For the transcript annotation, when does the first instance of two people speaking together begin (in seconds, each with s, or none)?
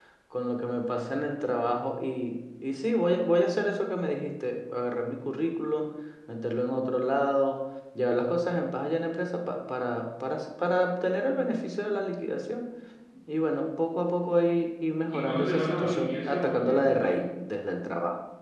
15.1 s